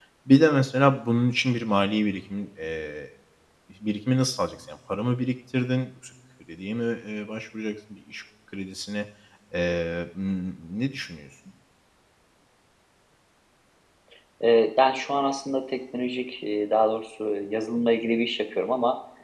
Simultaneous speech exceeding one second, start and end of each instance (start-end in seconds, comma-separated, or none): none